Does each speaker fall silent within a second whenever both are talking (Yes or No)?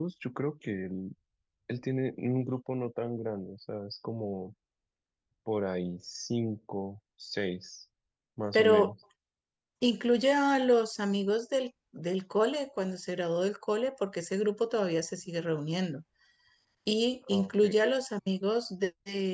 Yes